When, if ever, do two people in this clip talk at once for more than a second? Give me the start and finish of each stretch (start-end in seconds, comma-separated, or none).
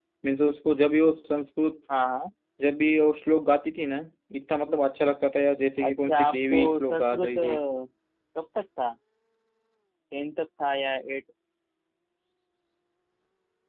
5.8-7.4